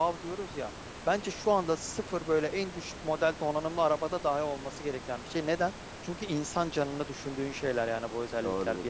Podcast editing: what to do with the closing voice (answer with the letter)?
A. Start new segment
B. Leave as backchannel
A